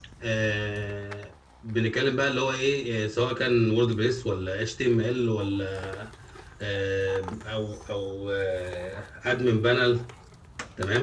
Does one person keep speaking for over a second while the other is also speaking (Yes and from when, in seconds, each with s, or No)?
No